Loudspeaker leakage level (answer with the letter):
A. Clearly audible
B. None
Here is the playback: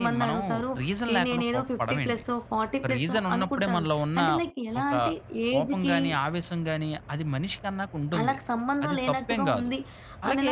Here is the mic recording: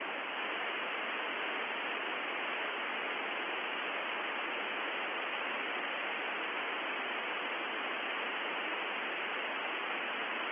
B